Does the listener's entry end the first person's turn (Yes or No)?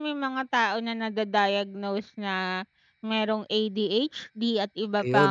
No